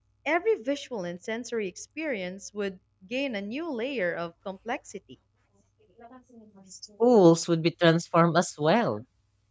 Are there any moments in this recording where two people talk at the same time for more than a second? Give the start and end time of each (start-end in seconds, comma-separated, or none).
none